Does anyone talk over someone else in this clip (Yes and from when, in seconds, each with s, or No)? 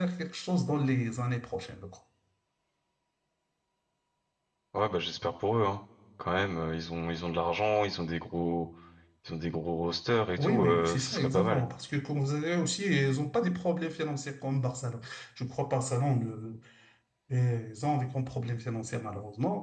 Yes, from 10.4 s